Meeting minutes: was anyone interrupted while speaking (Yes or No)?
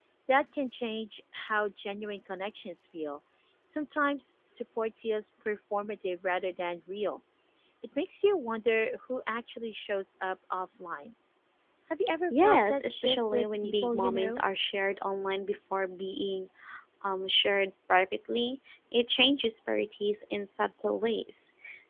Yes